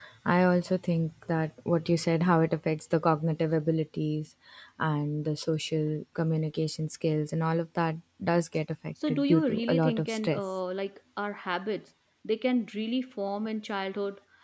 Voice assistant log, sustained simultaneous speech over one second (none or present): present